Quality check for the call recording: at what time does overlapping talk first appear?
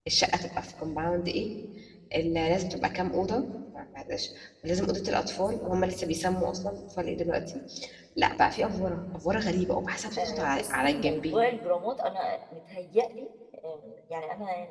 10.2 s

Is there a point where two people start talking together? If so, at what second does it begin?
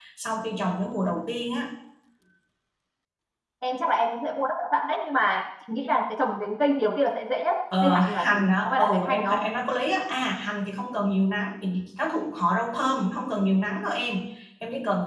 7.7 s

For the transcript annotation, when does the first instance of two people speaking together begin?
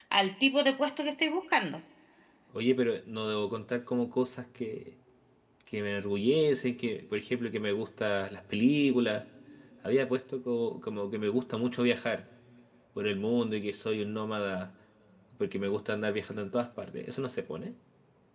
none

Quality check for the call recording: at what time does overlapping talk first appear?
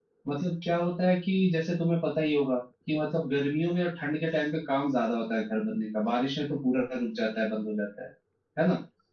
none

